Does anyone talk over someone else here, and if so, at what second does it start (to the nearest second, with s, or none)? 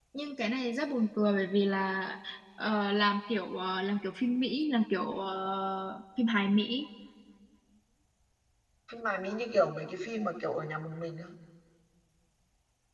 none